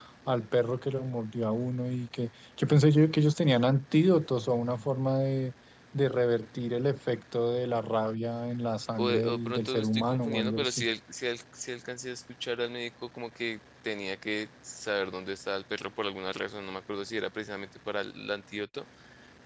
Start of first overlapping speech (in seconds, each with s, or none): 9.0 s